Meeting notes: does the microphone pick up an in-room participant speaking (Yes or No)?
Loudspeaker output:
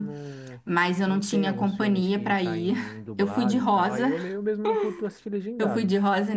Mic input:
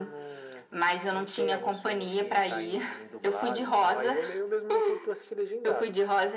No